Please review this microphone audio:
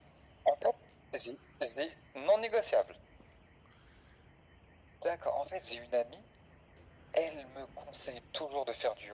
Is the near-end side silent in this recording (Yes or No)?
Yes